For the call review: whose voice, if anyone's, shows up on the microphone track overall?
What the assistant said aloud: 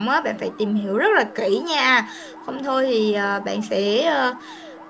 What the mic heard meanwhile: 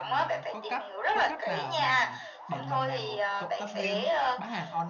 both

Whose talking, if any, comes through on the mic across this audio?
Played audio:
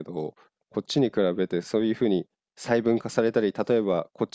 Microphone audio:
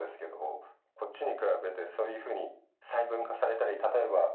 echo only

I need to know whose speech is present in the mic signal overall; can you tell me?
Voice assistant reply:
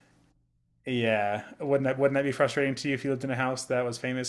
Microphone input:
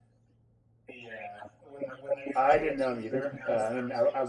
both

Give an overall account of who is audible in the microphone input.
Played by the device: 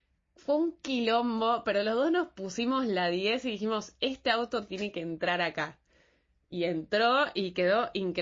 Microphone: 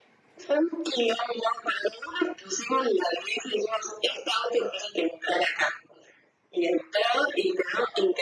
echo only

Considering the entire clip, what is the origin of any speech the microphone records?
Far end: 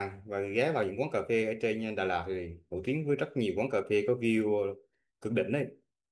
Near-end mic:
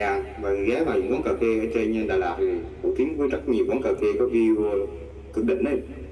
echo only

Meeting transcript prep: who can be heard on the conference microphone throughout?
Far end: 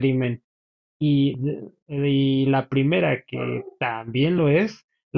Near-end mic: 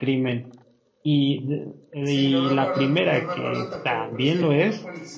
both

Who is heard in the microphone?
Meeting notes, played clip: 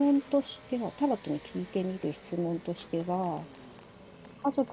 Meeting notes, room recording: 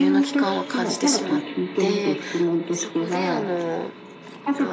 both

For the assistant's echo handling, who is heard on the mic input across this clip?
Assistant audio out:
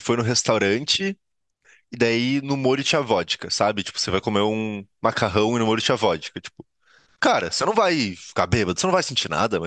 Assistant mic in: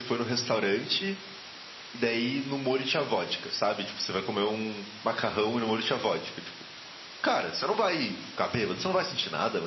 echo only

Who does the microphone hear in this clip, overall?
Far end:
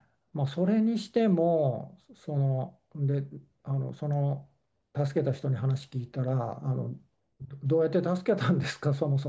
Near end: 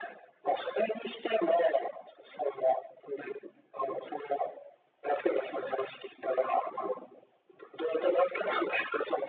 echo only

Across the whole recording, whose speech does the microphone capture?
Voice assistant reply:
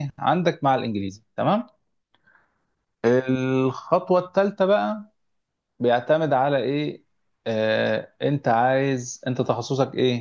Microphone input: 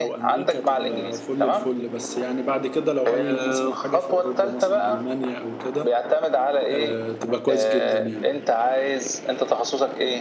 both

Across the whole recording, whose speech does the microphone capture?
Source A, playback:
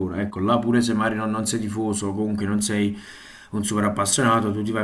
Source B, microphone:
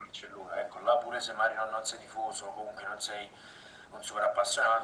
echo only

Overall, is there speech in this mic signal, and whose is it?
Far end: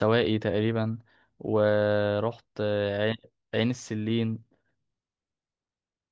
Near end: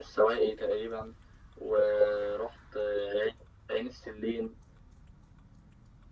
echo only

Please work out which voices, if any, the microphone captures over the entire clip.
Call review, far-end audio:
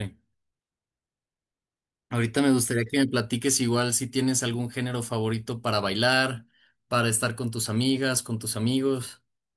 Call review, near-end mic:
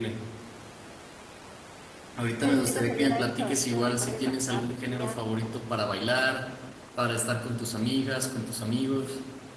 both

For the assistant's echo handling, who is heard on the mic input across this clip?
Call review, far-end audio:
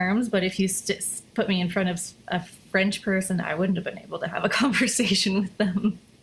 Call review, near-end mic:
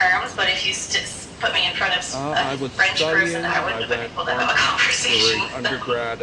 both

